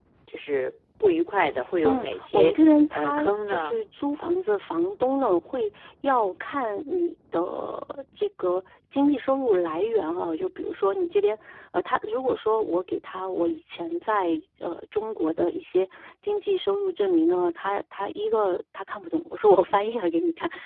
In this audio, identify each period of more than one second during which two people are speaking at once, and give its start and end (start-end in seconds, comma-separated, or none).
1.8-3.8